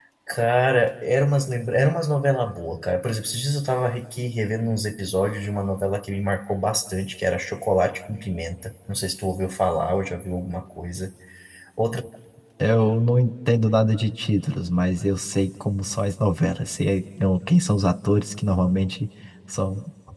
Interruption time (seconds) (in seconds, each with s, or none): none